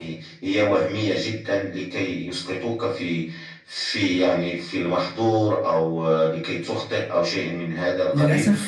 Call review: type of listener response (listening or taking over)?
taking over